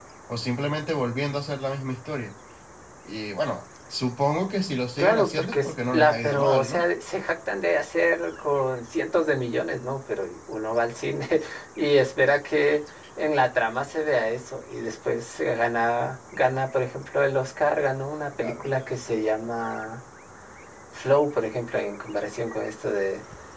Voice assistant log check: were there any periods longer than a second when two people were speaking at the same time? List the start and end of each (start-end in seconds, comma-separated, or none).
5.0-6.8